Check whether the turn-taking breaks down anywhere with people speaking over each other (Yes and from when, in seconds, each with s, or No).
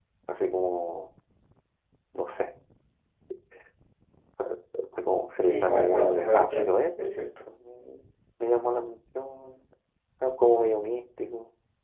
Yes, from 5.4 s